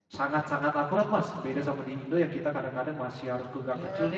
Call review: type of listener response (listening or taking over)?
listening